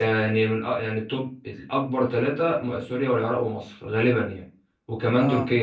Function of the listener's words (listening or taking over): listening